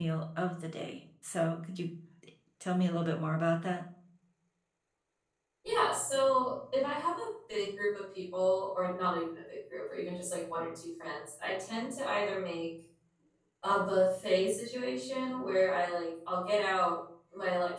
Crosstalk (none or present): none